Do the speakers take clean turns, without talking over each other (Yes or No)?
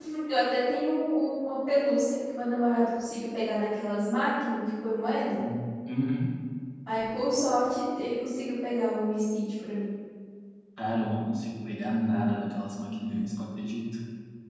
Yes